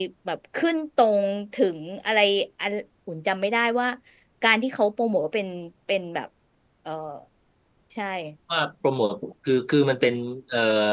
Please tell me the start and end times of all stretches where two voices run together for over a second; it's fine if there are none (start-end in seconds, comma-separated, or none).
none